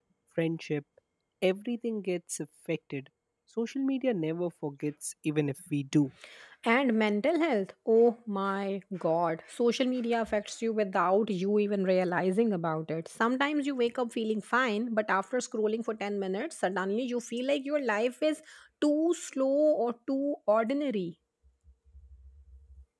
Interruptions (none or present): none